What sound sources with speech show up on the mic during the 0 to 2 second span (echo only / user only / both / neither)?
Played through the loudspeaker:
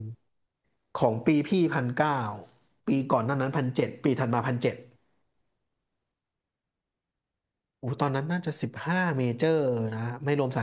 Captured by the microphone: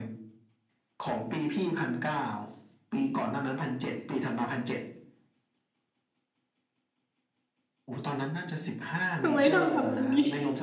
echo only